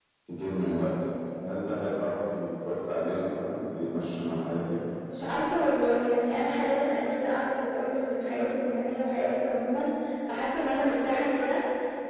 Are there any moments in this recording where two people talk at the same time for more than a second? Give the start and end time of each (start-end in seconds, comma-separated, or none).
none